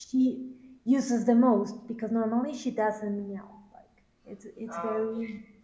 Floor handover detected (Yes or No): No